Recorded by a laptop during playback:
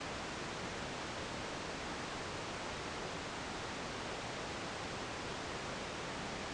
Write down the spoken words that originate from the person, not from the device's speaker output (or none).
none